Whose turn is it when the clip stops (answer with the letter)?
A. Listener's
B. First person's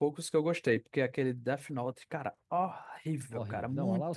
A